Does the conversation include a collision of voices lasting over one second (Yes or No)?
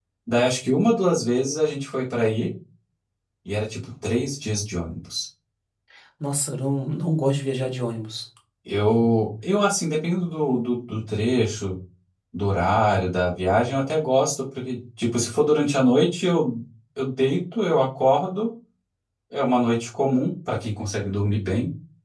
No